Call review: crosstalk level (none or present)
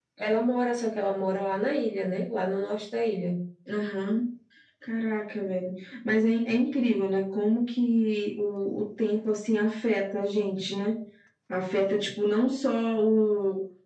none